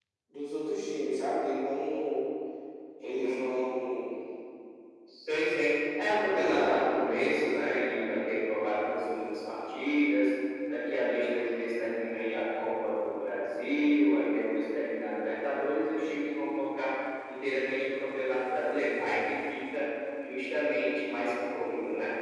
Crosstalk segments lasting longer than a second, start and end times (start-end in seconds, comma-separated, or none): 6.3-7.8